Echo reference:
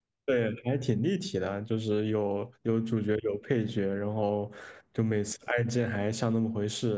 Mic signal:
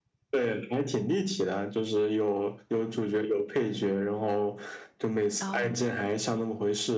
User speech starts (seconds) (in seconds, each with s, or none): 5.4 s